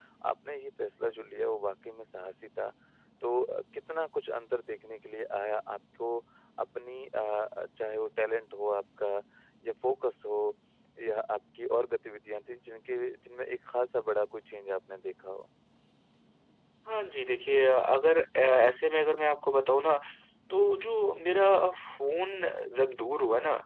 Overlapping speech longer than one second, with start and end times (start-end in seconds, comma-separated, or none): none